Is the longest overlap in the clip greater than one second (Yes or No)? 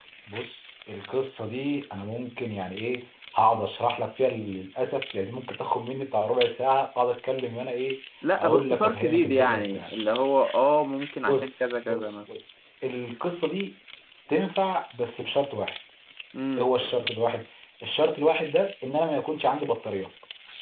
Yes